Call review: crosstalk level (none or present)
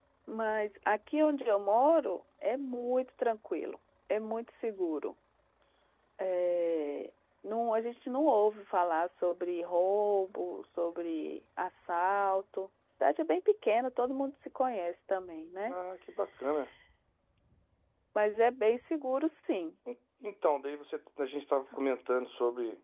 none